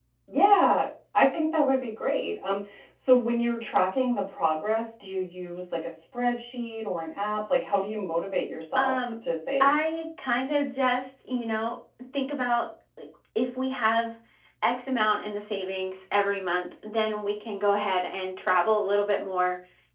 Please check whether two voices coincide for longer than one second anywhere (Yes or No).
No